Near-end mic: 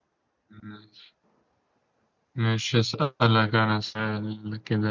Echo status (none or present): none